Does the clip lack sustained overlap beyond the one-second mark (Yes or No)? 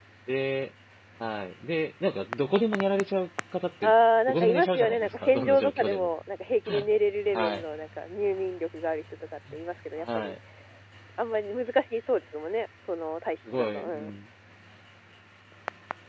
No